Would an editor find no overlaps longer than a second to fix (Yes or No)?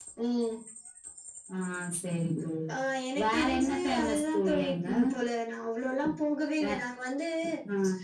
No